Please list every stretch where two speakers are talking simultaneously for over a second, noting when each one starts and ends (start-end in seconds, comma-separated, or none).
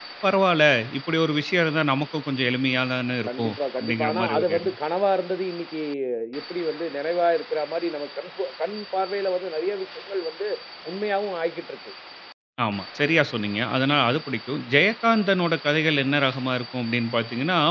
3.2-4.8